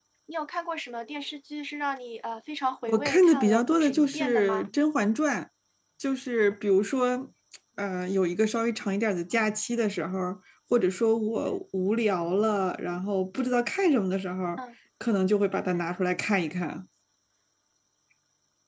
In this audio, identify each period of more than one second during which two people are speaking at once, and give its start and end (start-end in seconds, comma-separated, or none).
2.9-4.7